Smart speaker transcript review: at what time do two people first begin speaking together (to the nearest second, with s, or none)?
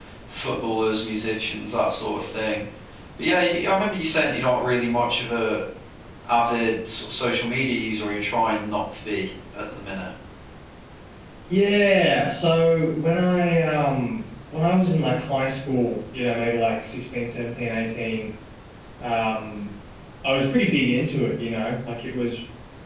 none